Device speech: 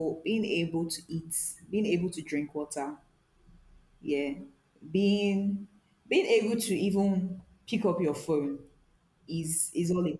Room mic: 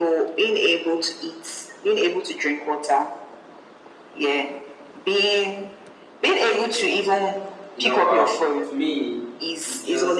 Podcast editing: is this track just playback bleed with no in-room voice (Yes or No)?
No